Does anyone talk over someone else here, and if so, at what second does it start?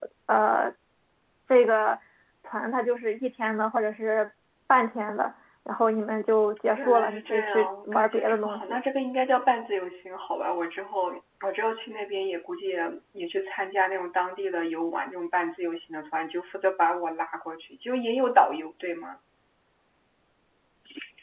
7 s

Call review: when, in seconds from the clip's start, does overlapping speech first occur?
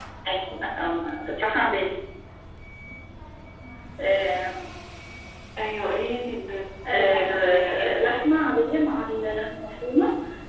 7 s

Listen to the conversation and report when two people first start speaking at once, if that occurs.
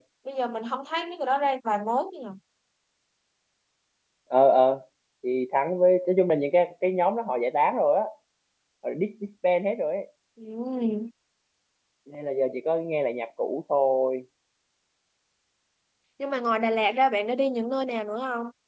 none

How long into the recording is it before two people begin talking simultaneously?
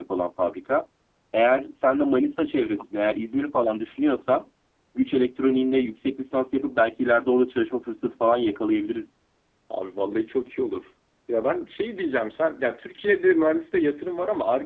none

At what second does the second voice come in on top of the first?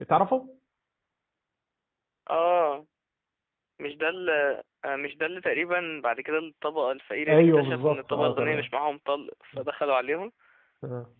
7 s

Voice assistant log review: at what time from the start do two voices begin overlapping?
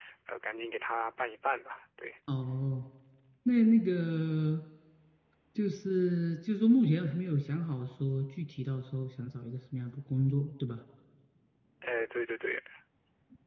none

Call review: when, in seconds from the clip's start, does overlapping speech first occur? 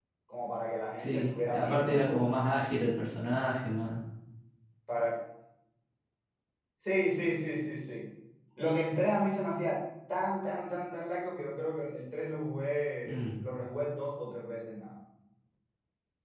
1 s

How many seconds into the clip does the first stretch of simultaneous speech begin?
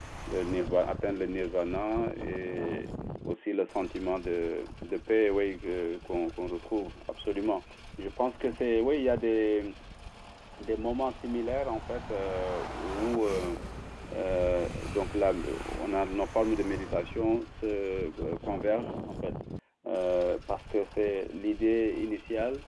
none

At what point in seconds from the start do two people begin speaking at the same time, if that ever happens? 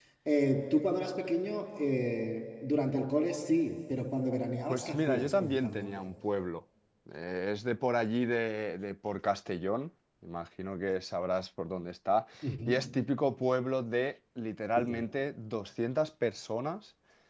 5 s

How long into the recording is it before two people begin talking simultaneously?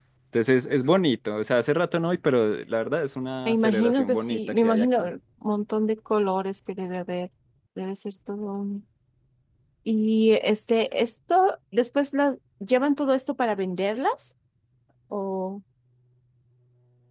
3 s

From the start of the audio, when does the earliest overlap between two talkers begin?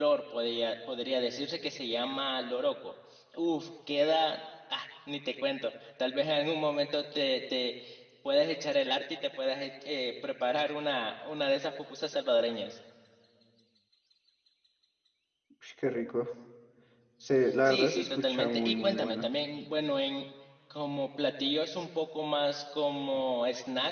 18 s

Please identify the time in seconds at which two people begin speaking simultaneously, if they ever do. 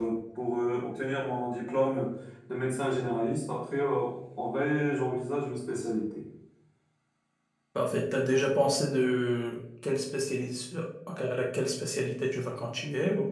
none

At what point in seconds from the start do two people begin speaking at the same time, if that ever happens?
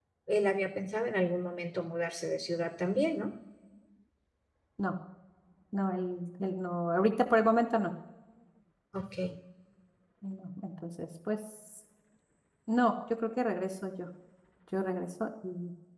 none

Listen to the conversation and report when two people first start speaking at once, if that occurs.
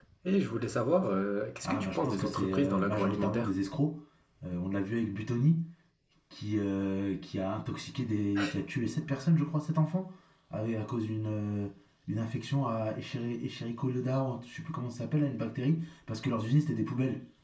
2 s

